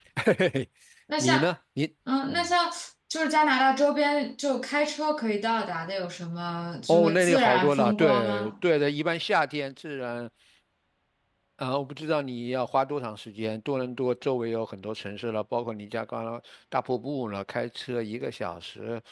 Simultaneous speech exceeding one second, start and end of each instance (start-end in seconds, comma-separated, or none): 6.9-8.5